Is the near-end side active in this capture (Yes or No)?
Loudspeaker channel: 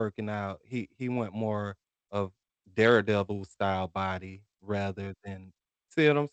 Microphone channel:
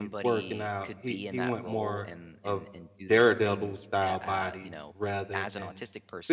Yes